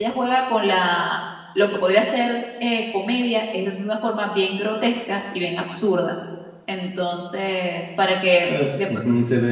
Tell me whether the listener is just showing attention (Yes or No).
No